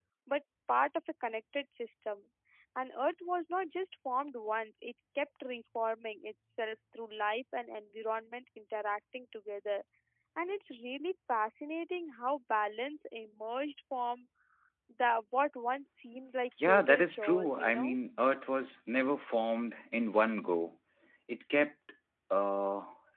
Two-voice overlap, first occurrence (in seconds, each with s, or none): 16.6 s